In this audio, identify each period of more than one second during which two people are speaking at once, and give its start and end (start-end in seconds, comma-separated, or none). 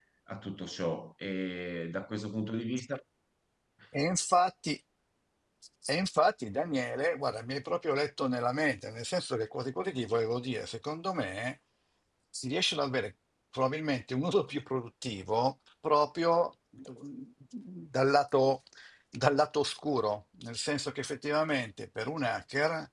none